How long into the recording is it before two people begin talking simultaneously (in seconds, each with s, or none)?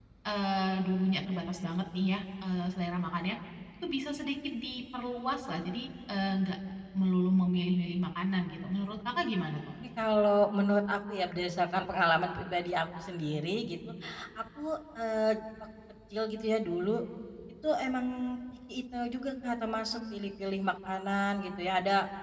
none